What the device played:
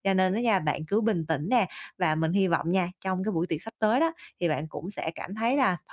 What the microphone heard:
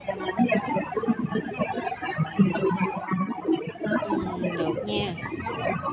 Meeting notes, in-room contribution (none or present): present